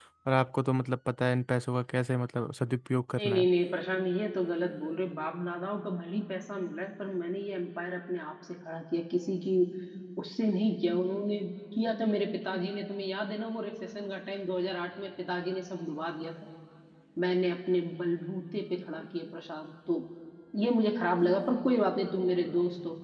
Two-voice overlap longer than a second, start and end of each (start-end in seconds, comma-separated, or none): none